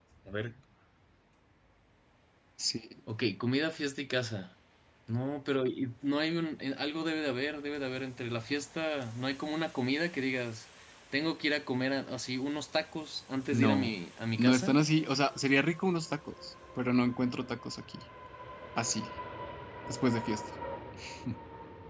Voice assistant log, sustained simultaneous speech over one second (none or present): none